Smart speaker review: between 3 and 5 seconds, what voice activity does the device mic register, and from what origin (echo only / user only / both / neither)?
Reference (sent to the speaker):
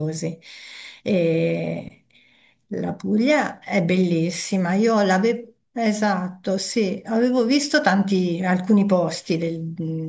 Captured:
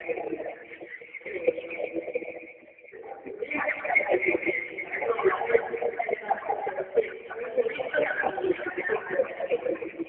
echo only